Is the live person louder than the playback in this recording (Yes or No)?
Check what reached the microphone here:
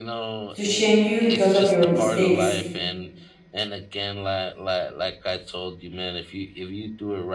Yes